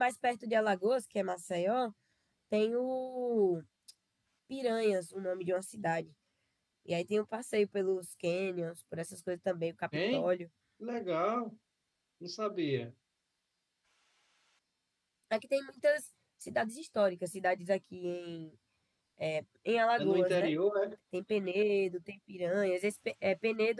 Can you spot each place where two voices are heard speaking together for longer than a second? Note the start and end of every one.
none

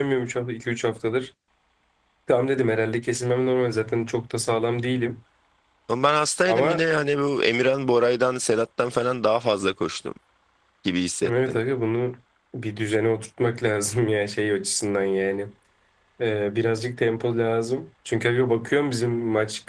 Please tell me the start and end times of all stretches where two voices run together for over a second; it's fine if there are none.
none

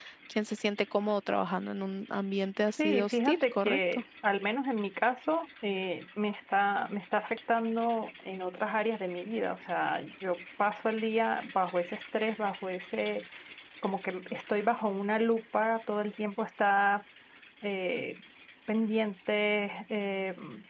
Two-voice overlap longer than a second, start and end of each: 2.8-4.0

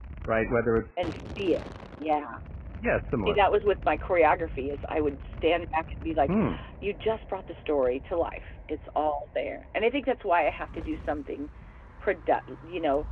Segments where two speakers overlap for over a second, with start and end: none

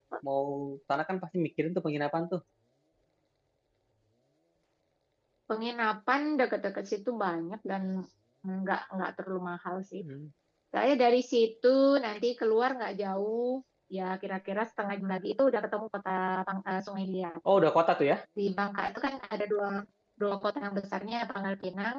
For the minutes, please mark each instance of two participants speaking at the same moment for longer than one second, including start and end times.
none

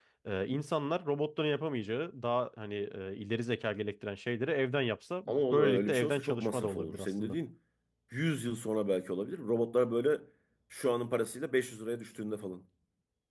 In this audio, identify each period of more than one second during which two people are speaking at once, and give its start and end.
5.3-7.4

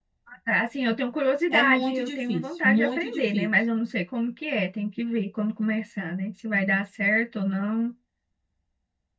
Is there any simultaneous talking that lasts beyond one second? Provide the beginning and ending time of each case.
1.5-3.5

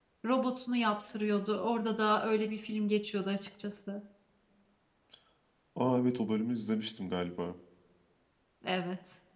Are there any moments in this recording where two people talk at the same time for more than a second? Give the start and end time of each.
none

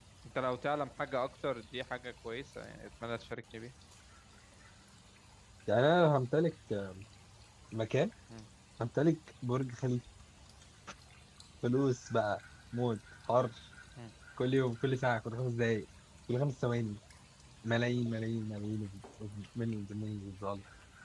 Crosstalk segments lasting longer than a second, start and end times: none

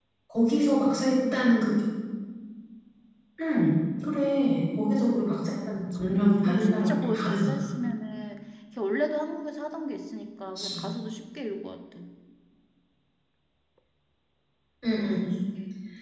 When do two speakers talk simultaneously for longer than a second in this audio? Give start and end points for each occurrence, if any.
5.4-7.5

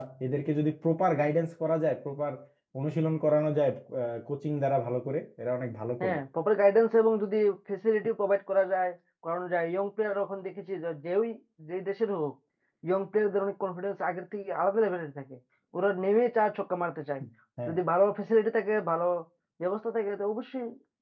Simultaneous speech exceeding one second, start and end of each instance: none

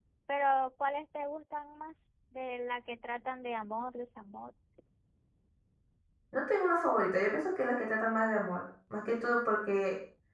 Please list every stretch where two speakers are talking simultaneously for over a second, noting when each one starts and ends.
none

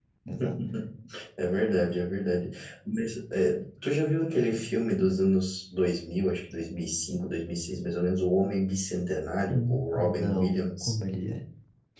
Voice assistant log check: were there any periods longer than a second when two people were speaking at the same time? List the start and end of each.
9.5-11.0

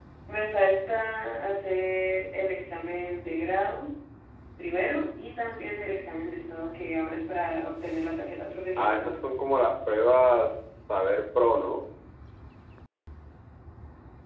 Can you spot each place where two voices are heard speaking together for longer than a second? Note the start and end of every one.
none

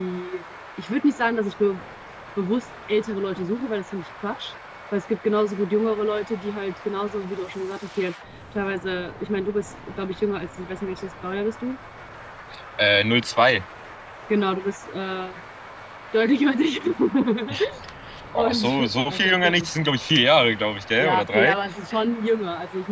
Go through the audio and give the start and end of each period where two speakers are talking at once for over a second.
18.4-19.7

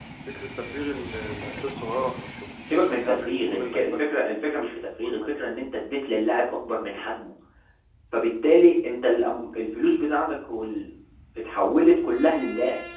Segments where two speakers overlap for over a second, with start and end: 2.7-4.0

